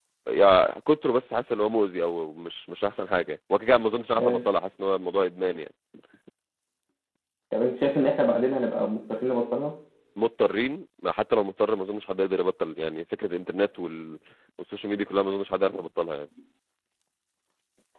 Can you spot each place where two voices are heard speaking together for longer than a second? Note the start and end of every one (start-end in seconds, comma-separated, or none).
none